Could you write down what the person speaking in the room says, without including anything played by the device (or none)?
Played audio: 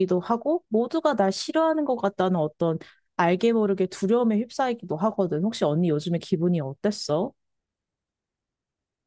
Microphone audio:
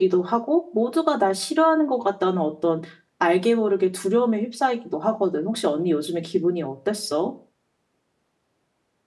none